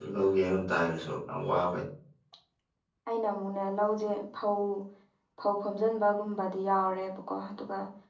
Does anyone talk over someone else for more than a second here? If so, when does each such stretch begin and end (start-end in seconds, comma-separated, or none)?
none